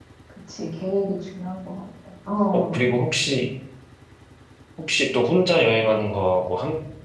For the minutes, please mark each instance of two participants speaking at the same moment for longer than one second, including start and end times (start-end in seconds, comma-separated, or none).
none